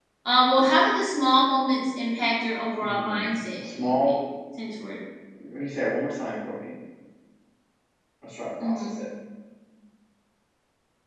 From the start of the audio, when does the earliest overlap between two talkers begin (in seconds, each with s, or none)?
2.8 s